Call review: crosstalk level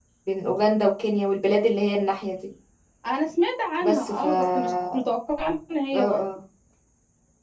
present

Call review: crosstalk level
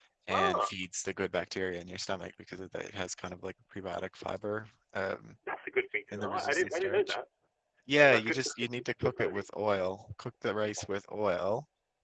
present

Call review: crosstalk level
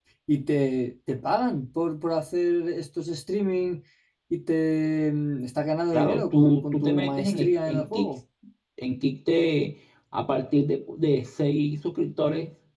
present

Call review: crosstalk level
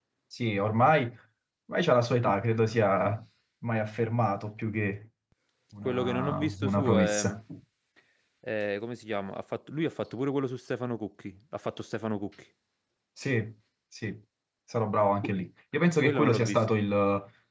present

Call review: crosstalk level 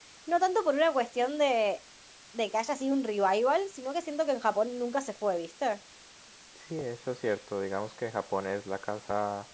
none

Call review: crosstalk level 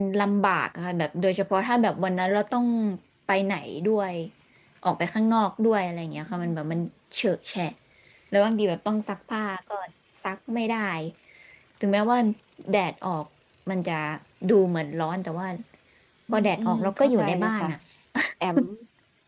present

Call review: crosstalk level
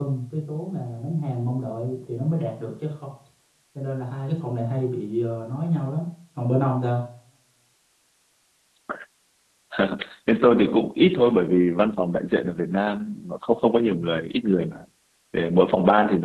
none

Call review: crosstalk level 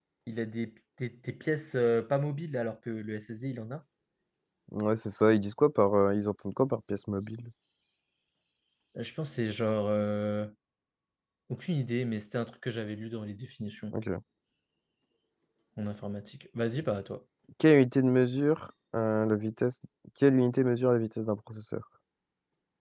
none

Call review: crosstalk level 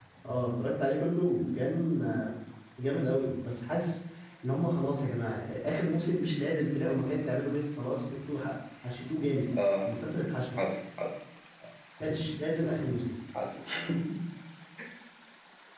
none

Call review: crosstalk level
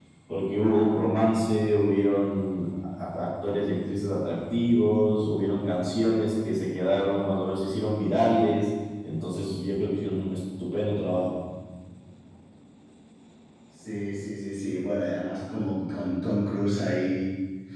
none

